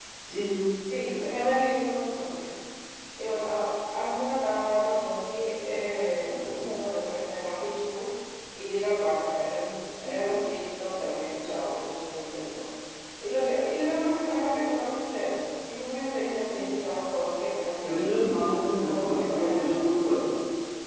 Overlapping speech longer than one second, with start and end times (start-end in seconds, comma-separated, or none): 18.9-20.1